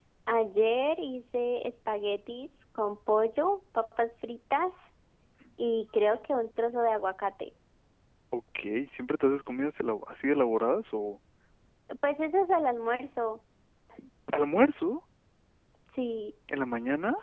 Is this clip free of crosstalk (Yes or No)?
Yes